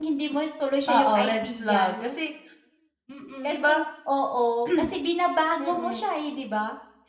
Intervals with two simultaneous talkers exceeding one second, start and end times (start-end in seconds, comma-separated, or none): 0.9-2.1